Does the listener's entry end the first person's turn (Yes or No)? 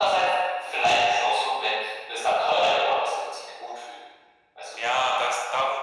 Yes